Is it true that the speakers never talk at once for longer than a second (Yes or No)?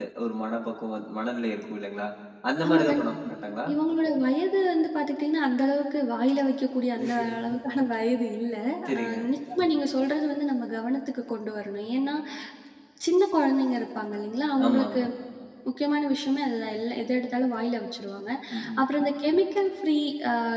Yes